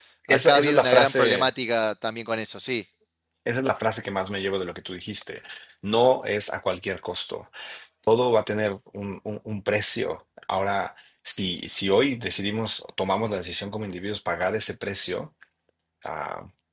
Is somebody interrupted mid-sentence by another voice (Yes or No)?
Yes